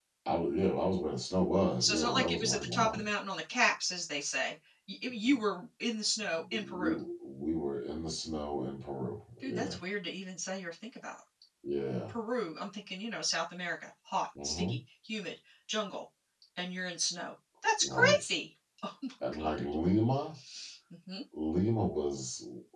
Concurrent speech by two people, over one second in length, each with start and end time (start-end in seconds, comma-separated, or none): 1.8-3.0